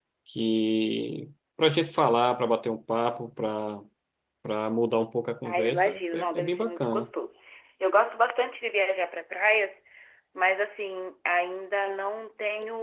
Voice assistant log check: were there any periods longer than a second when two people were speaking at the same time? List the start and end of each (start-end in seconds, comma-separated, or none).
5.4-7.1